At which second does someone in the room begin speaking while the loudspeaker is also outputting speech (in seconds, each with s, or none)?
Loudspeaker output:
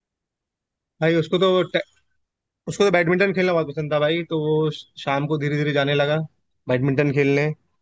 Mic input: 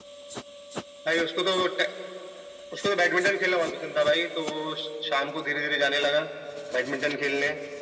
none